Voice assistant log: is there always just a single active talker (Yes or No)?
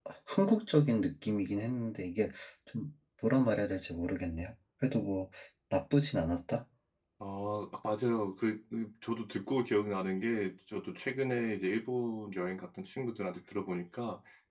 Yes